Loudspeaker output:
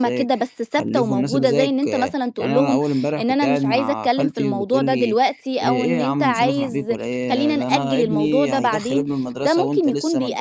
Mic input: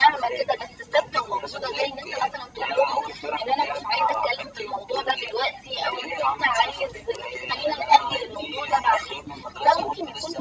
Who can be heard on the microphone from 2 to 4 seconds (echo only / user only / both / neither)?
echo only